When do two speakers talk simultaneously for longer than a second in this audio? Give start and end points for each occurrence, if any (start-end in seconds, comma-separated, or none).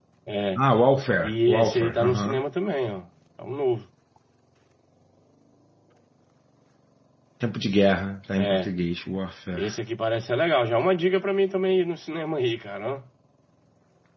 1.2-2.4